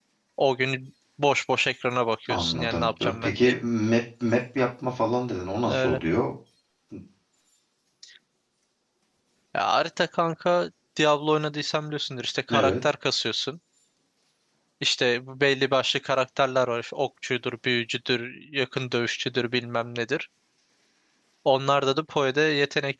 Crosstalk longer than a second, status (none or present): present